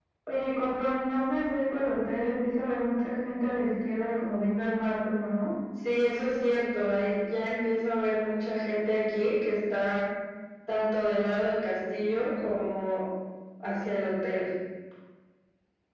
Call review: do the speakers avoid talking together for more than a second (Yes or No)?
Yes